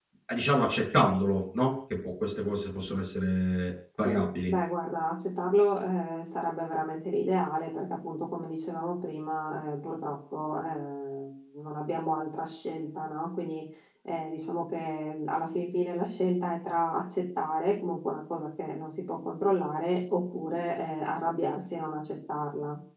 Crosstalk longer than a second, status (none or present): none